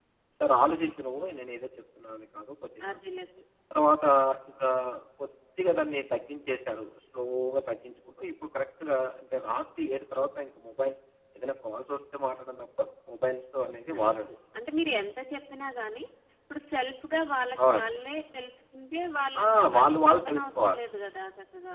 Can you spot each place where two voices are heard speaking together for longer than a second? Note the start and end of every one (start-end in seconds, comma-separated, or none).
19.4-20.8